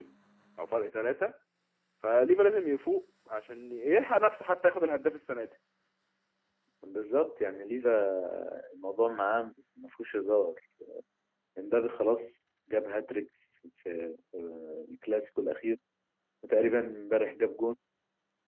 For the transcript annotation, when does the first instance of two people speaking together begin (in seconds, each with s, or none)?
none